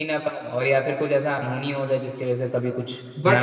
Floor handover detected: Yes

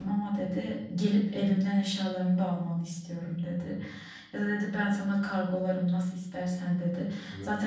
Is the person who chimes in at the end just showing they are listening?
Yes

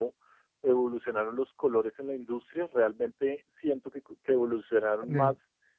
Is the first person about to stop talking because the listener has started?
No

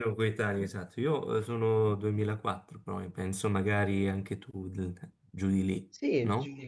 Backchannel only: No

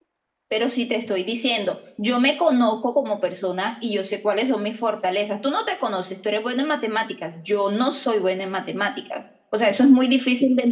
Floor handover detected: No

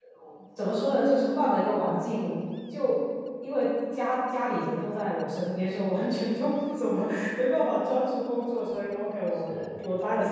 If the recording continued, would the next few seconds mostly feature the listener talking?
No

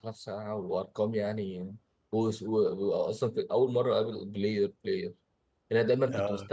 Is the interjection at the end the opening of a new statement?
No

